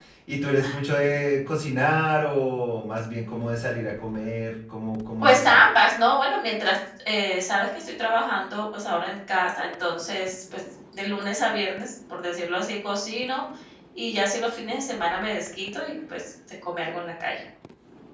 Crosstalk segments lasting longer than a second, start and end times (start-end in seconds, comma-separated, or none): none